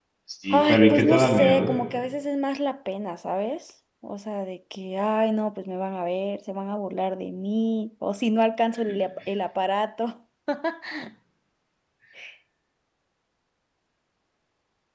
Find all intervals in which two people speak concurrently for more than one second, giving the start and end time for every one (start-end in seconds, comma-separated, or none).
0.5-1.8